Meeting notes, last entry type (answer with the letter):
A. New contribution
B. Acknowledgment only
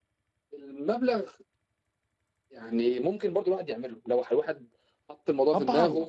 B